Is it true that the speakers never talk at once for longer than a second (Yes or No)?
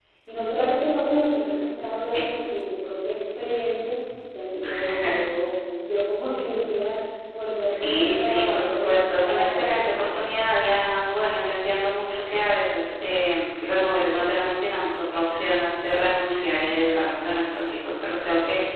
No